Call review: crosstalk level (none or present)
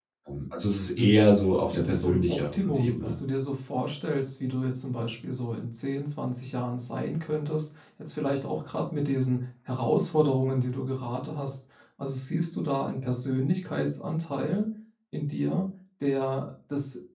present